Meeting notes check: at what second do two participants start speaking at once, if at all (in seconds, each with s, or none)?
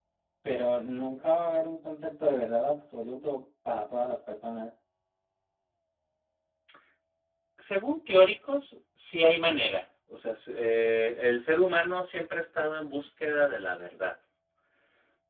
none